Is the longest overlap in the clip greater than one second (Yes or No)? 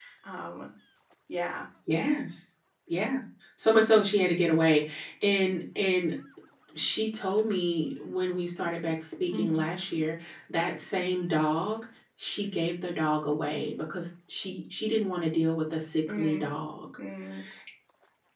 No